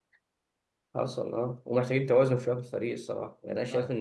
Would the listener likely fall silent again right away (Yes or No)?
Yes